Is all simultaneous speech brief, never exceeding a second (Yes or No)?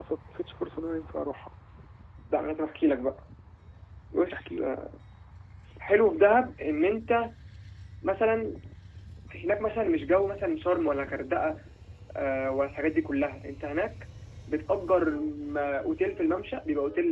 Yes